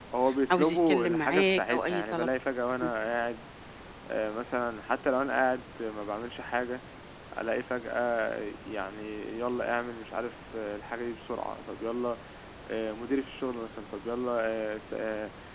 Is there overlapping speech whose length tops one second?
Yes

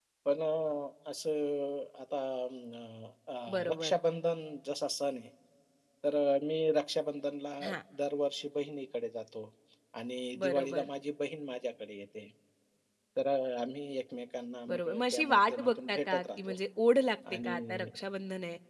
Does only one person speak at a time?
No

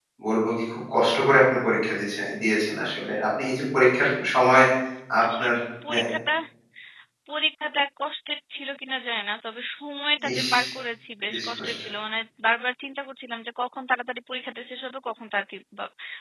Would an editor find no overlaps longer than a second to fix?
Yes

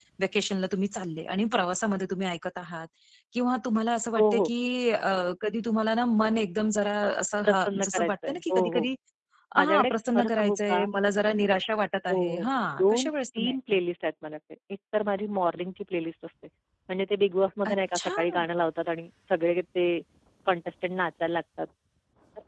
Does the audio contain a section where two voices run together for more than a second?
Yes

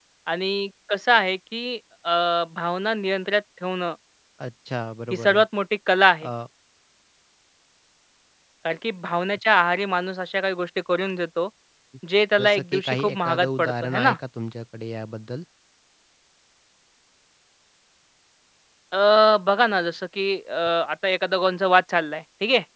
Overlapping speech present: Yes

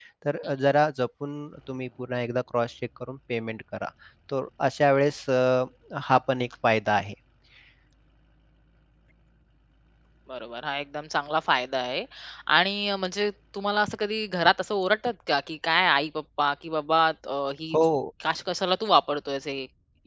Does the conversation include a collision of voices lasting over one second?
No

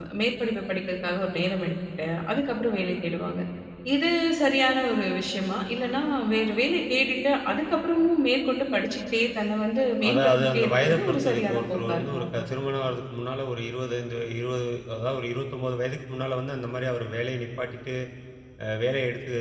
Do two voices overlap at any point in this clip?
Yes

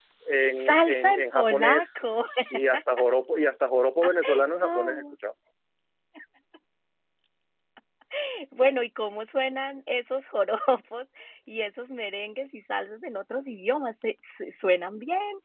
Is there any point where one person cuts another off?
Yes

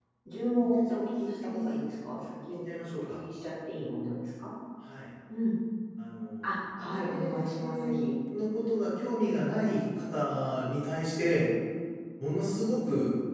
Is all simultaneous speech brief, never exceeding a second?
No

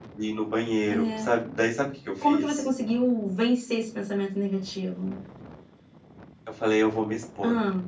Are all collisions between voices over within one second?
Yes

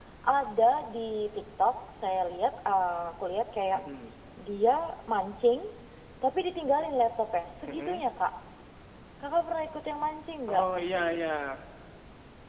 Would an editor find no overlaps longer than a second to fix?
Yes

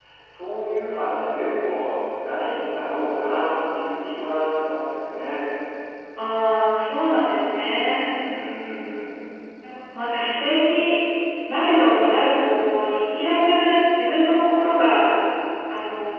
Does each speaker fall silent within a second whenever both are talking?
Yes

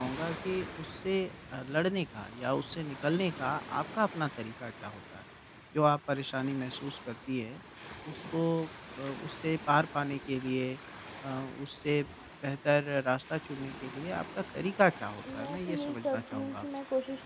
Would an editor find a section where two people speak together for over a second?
Yes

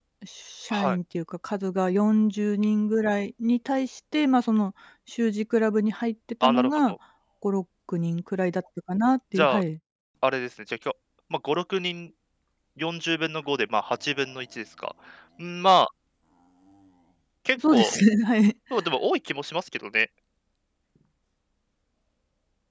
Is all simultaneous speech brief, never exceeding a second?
Yes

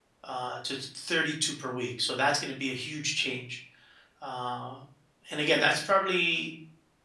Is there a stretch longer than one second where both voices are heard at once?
No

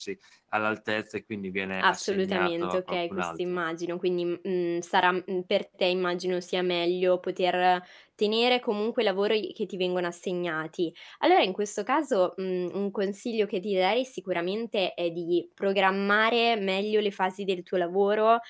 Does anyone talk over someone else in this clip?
Yes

